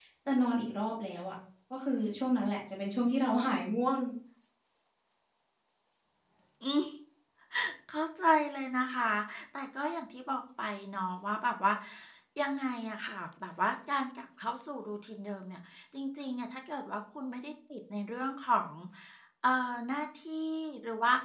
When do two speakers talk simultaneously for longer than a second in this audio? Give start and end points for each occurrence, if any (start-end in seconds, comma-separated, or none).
none